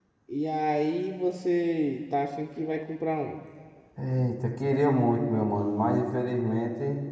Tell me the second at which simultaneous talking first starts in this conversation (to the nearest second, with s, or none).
none